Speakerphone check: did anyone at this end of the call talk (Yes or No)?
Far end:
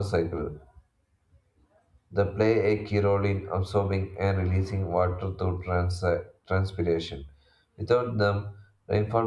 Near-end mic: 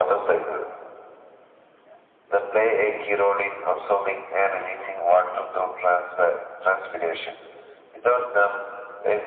No